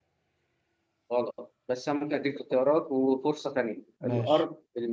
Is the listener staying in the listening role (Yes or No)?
Yes